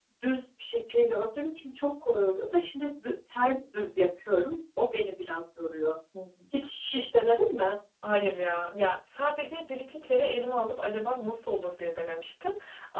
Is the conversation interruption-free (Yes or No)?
Yes